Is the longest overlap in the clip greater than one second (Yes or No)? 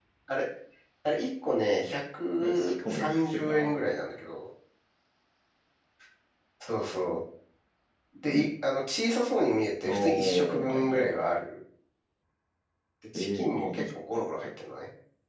Yes